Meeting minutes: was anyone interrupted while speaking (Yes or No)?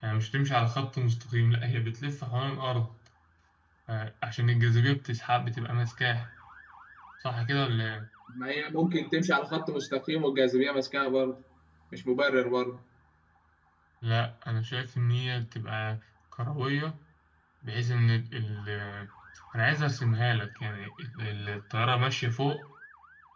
No